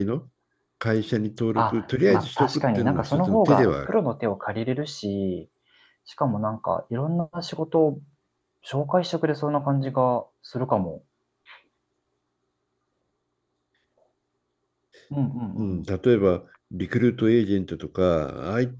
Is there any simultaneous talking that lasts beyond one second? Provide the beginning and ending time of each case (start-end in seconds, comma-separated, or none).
1.6-3.9